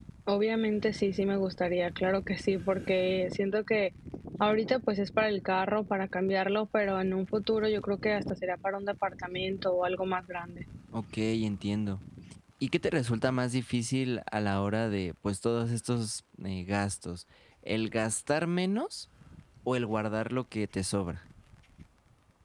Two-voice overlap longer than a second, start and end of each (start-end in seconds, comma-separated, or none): none